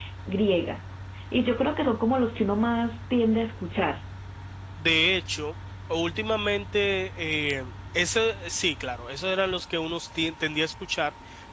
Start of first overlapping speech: none

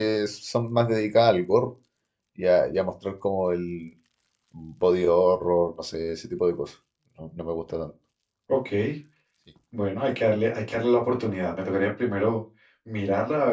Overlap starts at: none

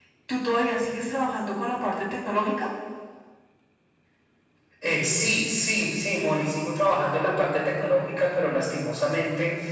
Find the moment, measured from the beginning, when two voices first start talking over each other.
none

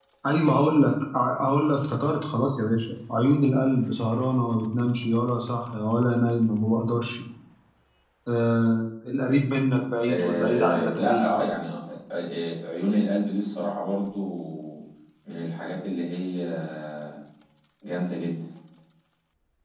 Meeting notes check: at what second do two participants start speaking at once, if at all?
10.1 s

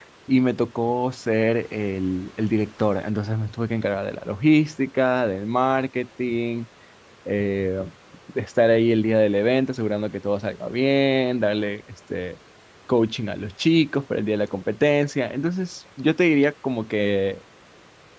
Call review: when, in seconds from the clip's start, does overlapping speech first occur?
none

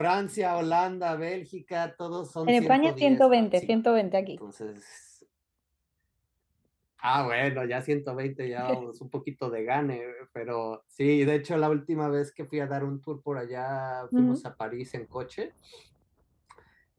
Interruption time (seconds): 2.5 s

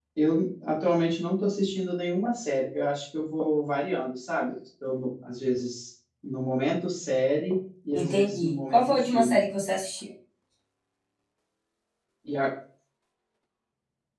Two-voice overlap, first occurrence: 7.9 s

